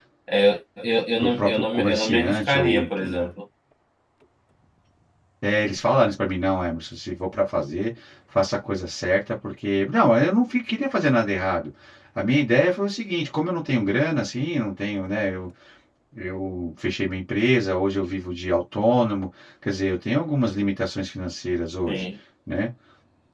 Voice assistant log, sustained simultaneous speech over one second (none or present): present